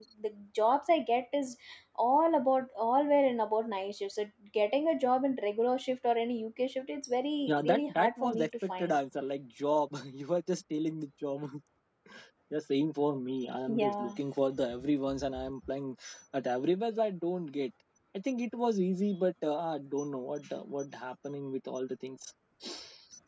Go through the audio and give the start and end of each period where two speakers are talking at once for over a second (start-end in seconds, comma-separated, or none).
7.5-9.0